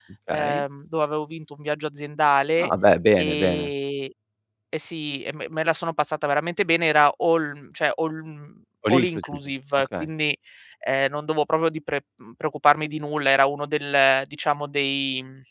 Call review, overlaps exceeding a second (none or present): none